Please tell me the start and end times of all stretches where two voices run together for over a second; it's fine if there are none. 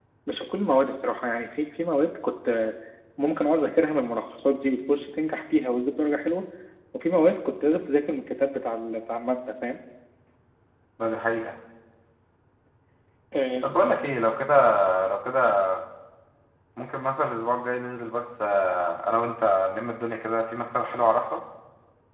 none

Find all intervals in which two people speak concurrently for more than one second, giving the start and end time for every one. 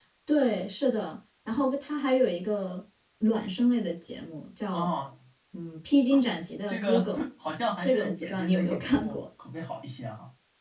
7.8-9.2

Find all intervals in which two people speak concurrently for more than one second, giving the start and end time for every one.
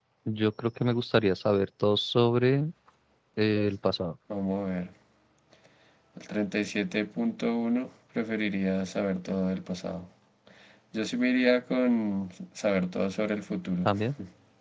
none

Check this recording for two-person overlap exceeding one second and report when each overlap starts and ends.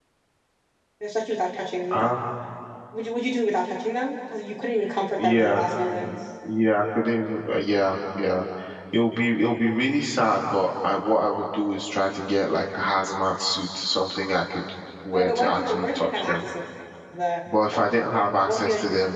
15.1-16.5

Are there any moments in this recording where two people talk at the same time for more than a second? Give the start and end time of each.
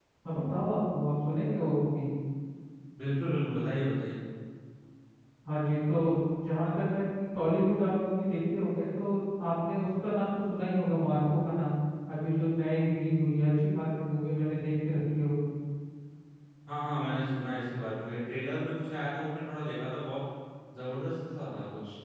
none

